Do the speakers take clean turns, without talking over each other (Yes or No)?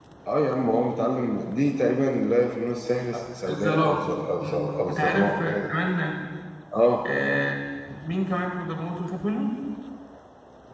No